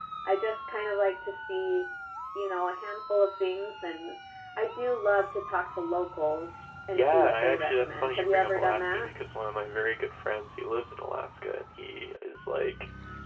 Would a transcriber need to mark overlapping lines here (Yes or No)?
Yes